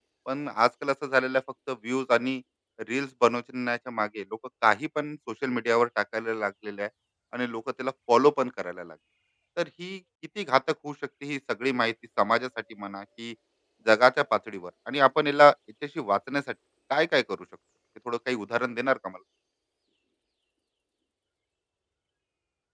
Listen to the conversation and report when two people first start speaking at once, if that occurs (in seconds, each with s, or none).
none